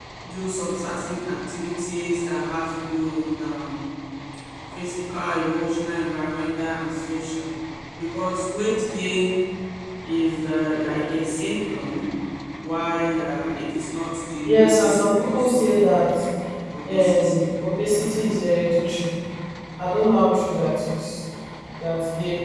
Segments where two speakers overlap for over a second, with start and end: 14.4-16.0

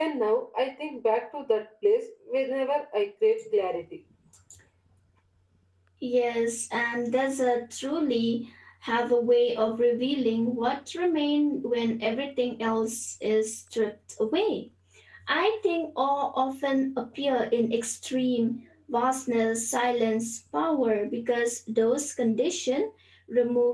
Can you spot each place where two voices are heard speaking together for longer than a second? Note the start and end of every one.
none

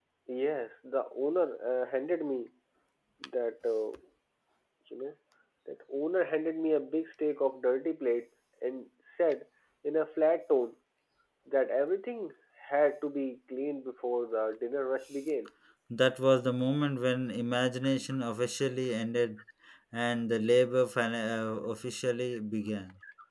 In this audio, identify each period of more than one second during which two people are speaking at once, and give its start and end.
none

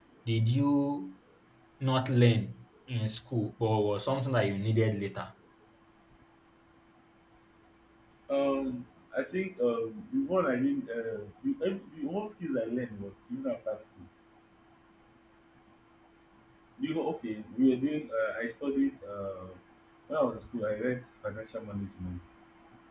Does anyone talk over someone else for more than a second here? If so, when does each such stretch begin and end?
none

